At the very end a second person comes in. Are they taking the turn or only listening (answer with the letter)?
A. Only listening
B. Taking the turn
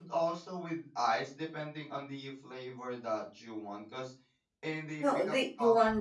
B